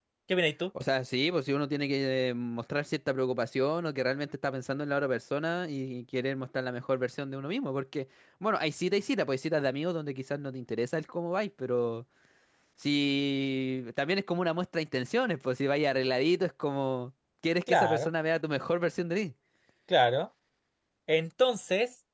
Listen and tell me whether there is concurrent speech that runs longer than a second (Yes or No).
No